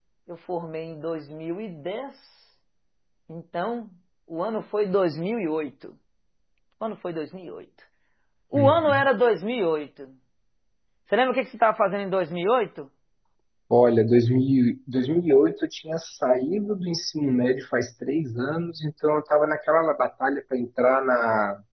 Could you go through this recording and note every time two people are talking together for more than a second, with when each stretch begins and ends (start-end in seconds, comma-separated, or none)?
none